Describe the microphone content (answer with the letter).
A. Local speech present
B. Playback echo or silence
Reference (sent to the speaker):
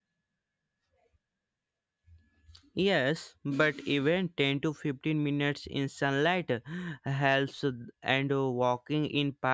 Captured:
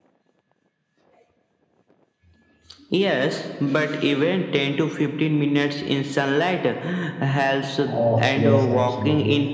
A